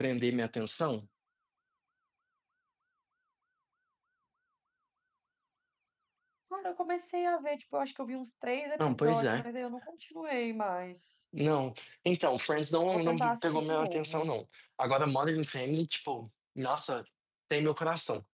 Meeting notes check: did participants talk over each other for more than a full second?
Yes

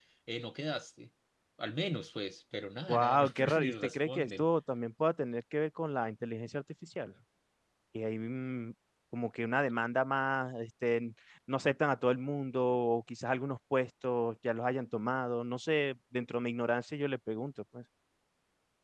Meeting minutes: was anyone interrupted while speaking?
Yes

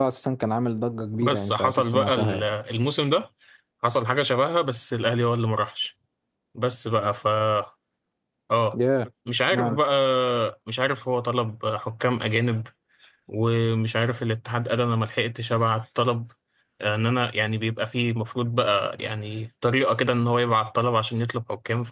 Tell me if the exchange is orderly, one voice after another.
No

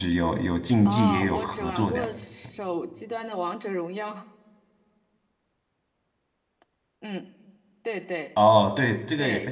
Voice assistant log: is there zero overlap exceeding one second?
No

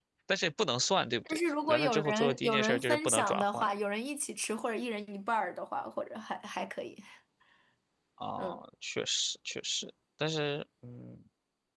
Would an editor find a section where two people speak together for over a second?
Yes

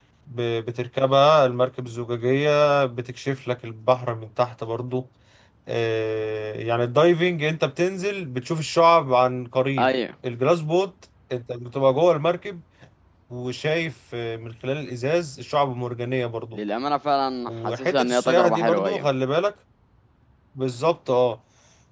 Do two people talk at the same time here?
Yes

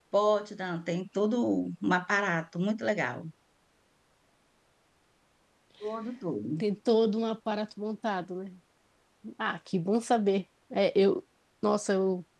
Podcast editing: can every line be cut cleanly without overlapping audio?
Yes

